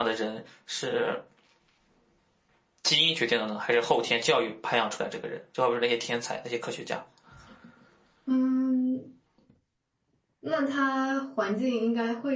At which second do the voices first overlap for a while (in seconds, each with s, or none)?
none